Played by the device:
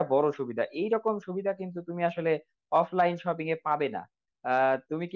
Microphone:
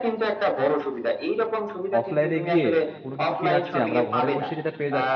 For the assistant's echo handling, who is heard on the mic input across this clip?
both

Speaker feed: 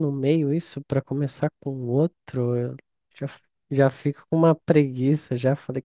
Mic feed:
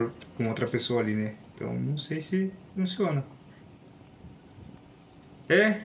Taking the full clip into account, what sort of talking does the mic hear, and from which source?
user only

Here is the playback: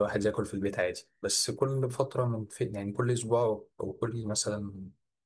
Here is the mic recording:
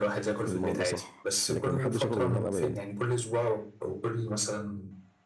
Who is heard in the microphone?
both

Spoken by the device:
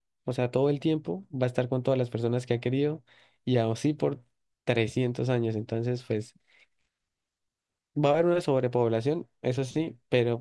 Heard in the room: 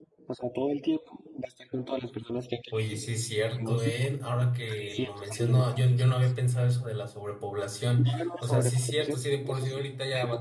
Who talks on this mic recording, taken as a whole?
both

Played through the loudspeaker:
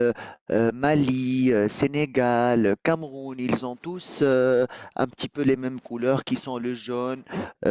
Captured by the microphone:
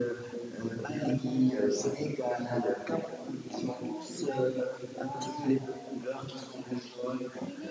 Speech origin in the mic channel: both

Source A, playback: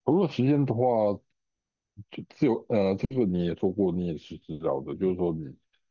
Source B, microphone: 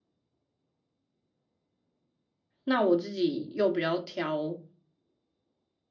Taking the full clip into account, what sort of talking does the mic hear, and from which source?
user only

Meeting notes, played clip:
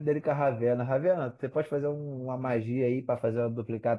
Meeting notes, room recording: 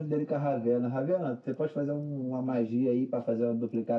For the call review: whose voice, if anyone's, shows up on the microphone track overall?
echo only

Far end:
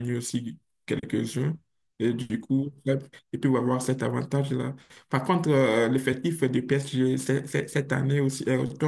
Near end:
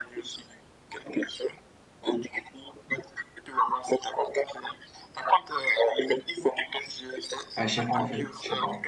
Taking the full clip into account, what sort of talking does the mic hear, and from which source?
both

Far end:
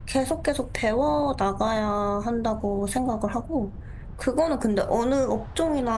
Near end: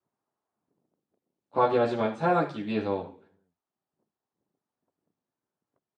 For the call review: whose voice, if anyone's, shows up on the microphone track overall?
user only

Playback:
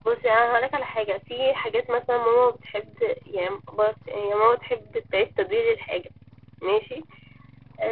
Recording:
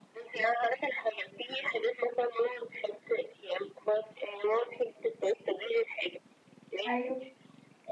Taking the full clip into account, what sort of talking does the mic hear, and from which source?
both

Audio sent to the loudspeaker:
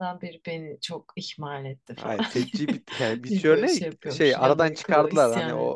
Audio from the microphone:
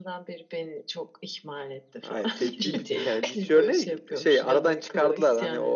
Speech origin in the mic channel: both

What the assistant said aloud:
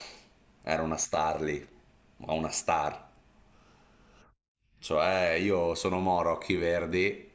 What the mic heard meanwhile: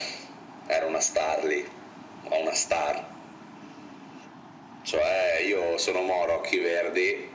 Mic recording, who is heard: echo only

